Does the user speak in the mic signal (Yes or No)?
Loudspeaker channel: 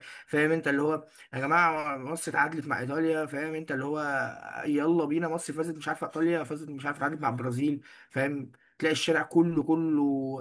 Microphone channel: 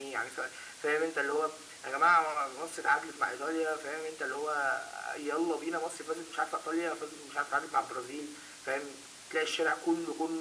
No